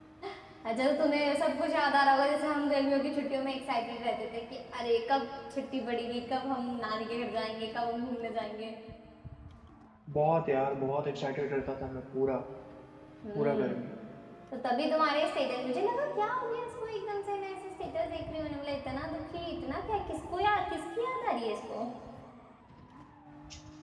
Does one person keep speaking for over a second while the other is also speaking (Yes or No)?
No